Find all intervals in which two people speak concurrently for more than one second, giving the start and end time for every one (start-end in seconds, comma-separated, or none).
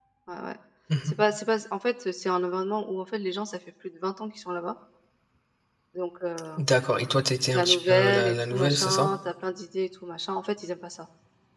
7.5-9.1